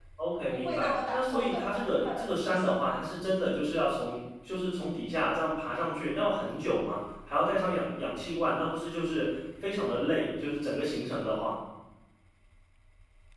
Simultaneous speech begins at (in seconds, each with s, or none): 0.5 s